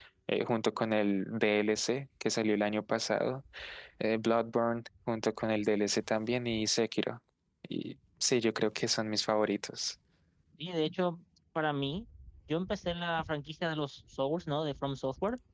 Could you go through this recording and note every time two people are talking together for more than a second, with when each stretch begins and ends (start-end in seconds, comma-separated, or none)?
none